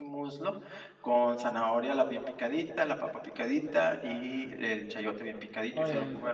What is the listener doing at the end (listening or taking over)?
listening